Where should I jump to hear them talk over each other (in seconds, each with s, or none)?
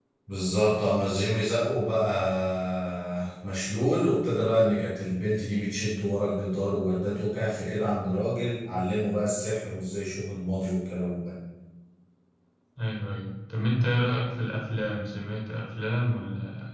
none